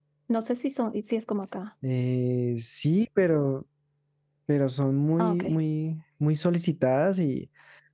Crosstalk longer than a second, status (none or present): none